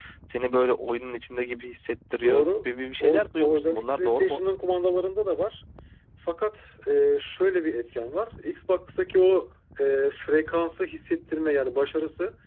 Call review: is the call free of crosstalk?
No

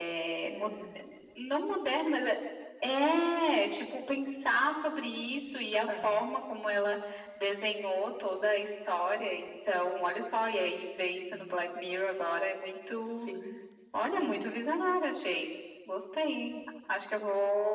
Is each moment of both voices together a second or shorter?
Yes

